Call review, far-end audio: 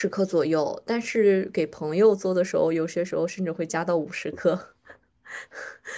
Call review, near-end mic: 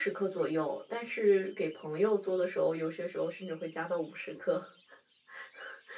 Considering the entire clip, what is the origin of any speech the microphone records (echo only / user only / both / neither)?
echo only